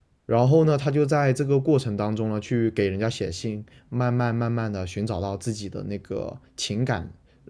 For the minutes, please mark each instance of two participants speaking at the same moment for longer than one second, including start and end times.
none

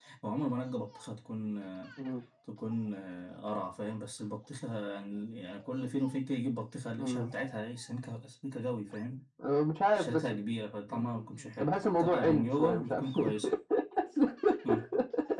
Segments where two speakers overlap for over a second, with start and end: 11.6-13.3

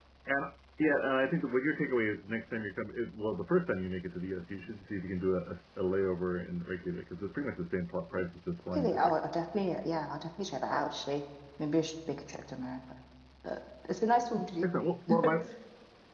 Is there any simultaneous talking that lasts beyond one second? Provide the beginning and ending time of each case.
none

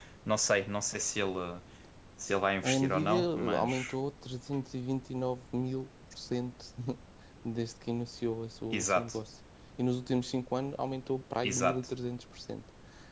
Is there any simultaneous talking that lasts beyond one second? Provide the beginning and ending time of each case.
2.6-3.9

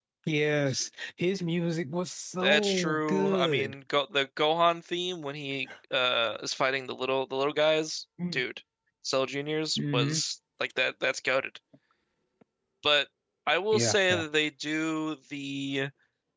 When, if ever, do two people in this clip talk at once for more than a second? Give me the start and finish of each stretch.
2.4-3.7

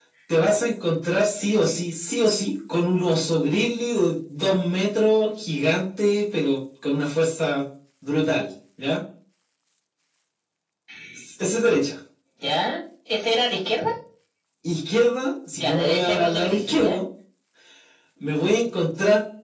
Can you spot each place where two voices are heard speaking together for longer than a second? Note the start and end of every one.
15.6-17.0

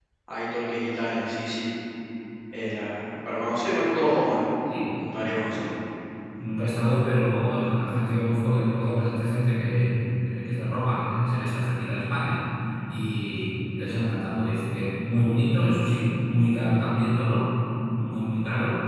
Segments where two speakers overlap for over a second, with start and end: none

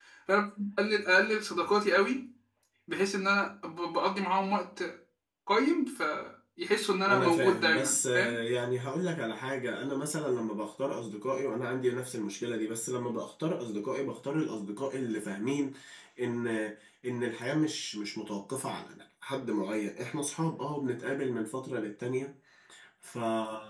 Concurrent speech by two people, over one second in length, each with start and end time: 7.1-8.5

